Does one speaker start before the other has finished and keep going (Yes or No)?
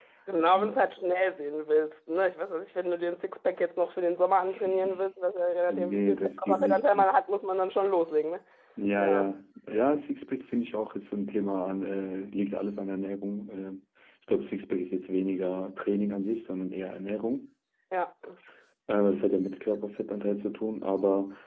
Yes